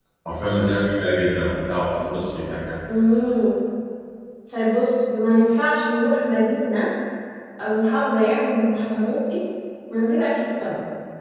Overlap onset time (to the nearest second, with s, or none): none